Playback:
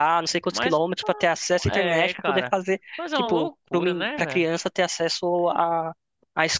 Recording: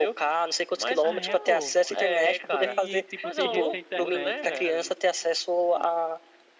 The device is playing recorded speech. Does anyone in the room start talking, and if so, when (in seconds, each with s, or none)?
1.0 s